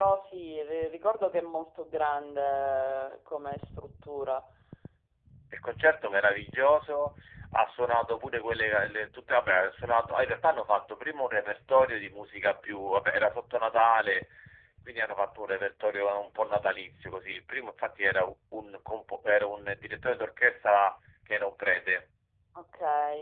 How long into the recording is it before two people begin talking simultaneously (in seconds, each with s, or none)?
none